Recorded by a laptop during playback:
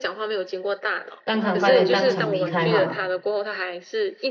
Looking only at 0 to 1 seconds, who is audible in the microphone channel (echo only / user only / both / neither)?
echo only